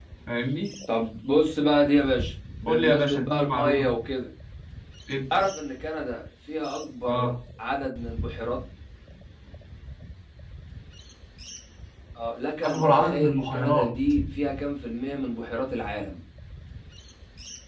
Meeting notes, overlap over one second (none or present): present